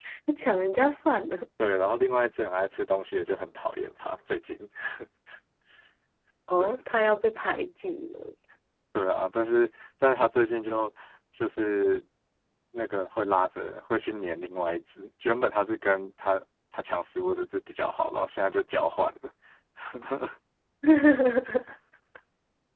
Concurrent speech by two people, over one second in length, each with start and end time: none

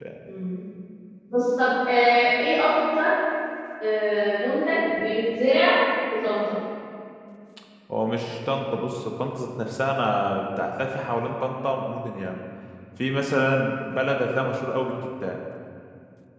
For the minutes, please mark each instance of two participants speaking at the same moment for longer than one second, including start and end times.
none

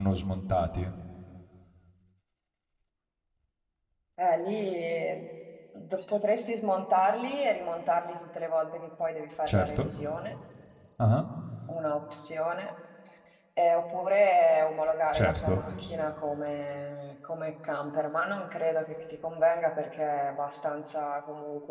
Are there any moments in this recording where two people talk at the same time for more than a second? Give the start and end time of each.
none

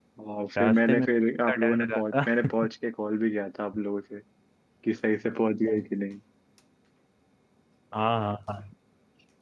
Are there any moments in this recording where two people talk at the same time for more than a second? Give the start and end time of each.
0.6-2.3

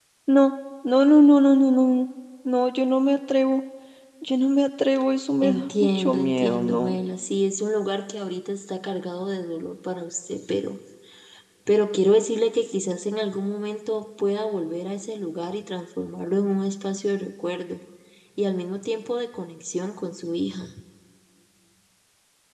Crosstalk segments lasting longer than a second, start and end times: 5.4-7.0

